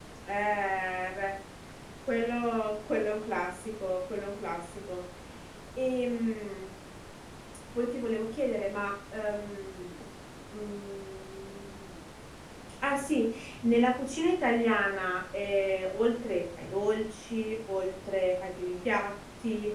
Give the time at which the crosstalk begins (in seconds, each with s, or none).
none